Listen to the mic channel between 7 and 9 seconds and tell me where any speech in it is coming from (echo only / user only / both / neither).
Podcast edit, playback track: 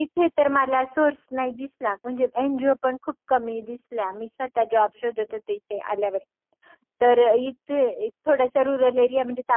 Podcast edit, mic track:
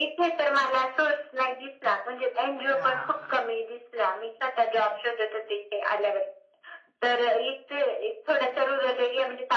echo only